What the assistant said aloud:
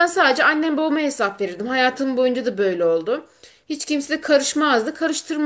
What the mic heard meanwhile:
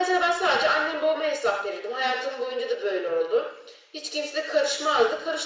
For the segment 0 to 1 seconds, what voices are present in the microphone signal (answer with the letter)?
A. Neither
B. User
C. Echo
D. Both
C